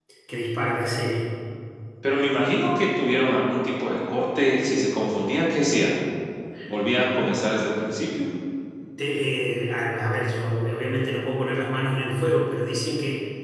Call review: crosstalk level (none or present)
none